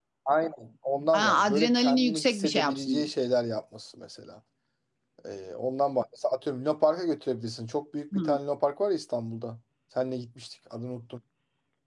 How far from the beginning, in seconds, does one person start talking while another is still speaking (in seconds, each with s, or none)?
1.1 s